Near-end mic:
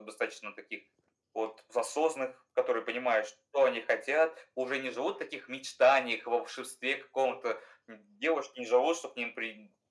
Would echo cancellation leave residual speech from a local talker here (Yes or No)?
No